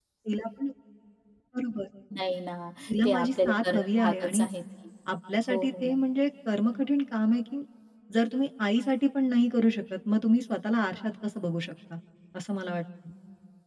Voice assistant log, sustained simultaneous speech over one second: present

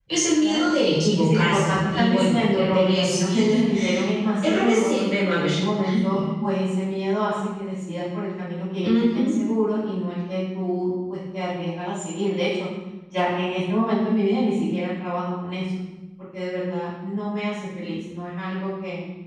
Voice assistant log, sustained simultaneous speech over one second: present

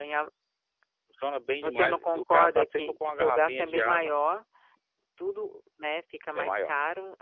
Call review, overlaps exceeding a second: present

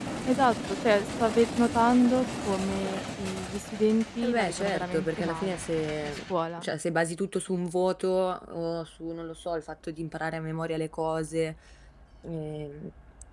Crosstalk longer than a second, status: present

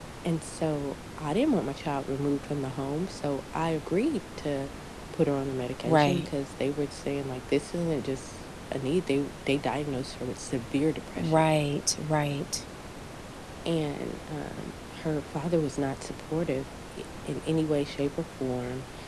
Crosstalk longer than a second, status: none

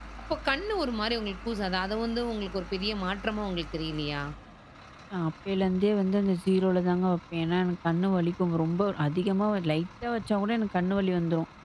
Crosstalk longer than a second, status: none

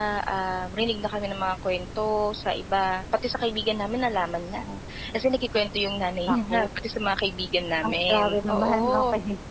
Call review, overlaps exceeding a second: present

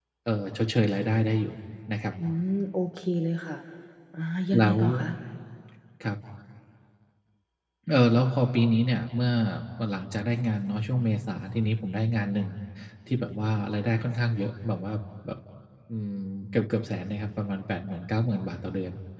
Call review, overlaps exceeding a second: none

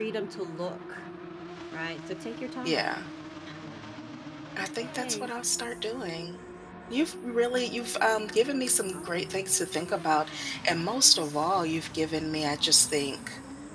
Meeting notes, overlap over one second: none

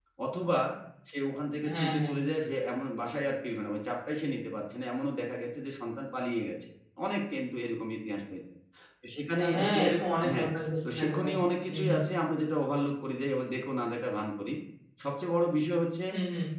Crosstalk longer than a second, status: none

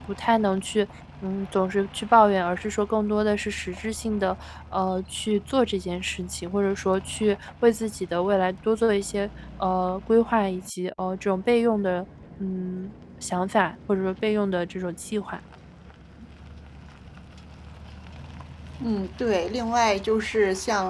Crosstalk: none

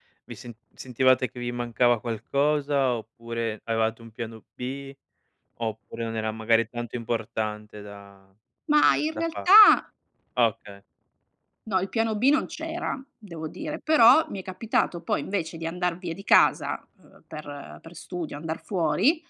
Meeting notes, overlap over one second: none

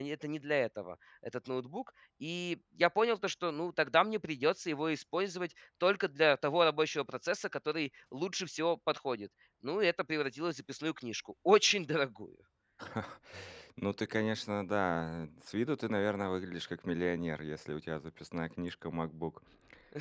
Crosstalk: none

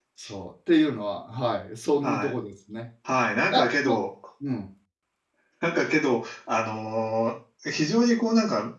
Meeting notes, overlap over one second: none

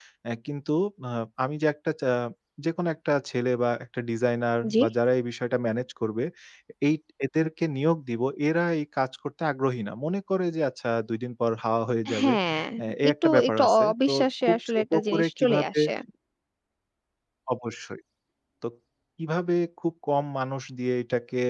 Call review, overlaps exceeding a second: present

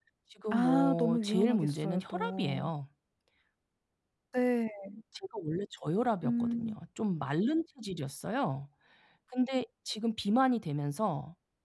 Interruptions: present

